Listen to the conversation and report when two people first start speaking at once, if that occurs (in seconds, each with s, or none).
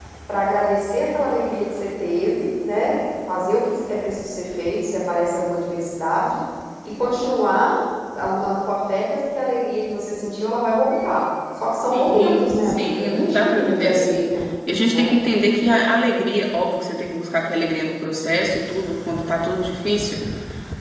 11.9 s